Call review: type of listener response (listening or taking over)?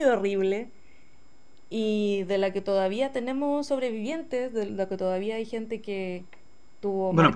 taking over